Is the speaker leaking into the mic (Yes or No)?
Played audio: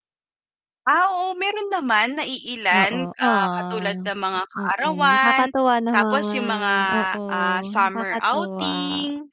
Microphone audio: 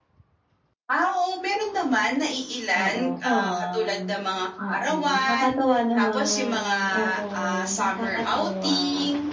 Yes